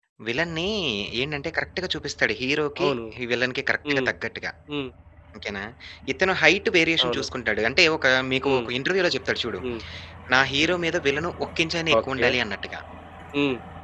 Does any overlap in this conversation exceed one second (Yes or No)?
No